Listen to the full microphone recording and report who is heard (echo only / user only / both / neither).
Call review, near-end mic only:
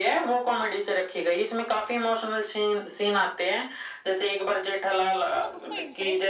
both